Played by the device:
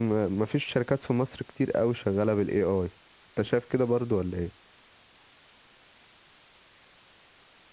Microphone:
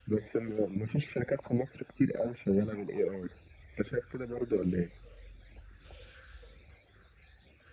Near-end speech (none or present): none